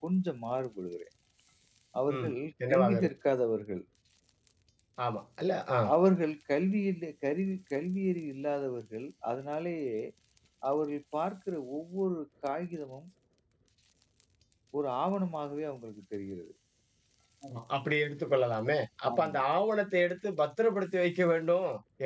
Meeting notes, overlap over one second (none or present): none